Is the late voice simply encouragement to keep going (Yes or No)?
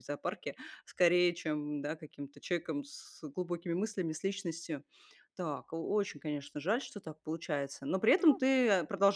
Yes